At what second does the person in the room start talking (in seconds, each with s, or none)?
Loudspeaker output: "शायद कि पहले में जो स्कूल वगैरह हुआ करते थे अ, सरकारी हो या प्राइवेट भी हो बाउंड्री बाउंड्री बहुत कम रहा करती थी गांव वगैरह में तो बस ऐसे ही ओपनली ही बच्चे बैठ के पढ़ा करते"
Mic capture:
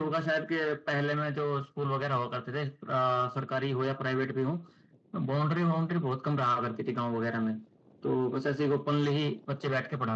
none